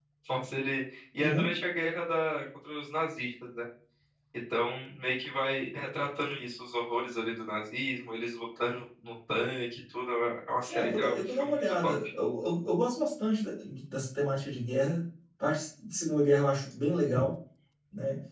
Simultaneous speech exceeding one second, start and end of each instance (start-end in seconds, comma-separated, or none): 10.7-11.9